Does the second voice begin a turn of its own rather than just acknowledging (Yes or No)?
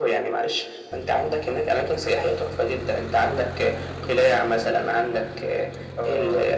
No